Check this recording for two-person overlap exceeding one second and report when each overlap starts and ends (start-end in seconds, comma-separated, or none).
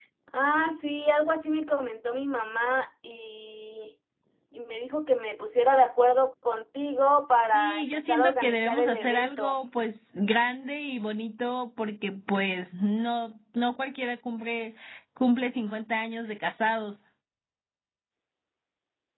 7.5-9.6